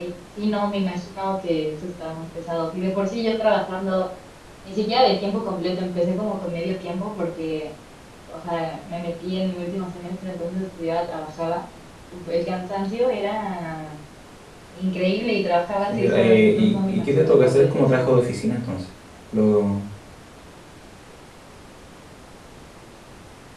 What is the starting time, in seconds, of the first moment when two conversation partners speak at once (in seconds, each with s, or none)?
15.9 s